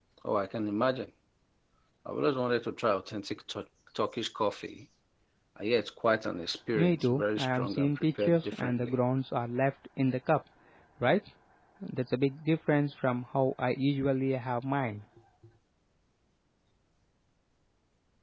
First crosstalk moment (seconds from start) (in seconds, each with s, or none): 6.8 s